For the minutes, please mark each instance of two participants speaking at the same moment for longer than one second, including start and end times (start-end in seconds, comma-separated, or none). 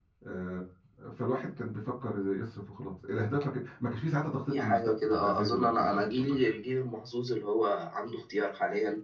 4.5-6.4